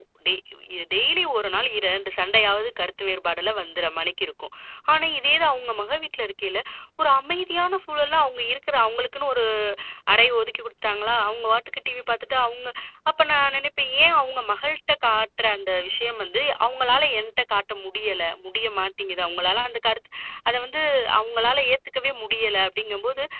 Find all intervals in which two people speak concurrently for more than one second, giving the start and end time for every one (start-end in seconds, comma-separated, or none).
none